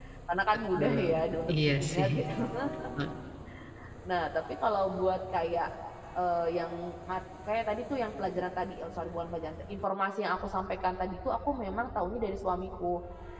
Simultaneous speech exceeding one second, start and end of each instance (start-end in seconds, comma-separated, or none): 0.8-2.1